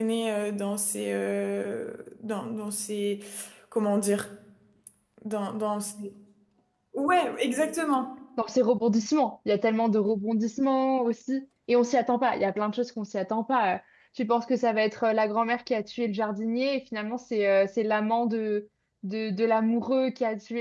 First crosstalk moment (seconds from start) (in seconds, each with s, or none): none